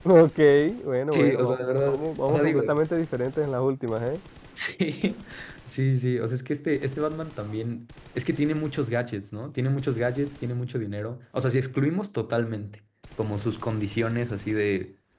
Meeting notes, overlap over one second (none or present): present